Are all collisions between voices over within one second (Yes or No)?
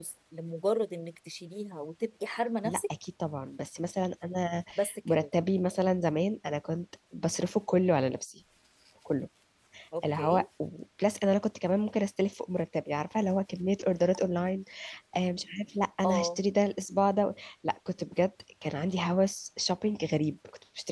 Yes